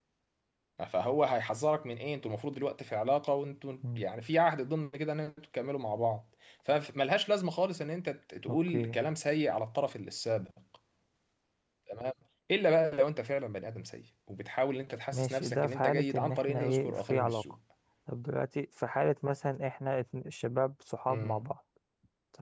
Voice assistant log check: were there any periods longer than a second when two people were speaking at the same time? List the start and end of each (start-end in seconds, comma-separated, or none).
15.1-17.4